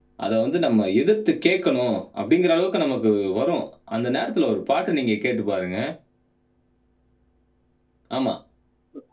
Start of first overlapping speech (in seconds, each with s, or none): none